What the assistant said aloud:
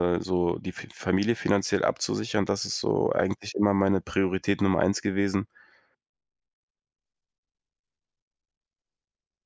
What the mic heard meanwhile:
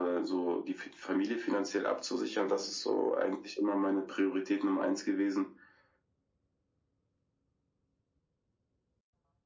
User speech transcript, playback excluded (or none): none